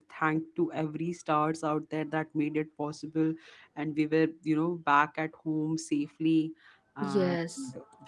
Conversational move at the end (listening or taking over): listening